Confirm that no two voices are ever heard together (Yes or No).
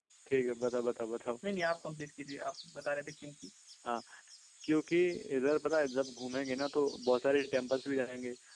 Yes